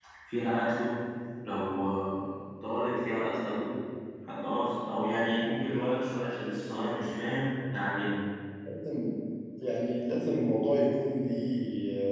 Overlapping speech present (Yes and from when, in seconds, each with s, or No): No